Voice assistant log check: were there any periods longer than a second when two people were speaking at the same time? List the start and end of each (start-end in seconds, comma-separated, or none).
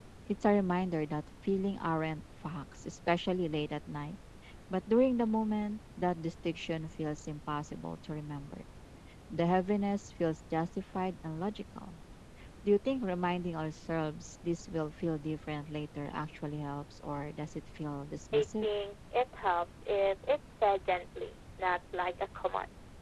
none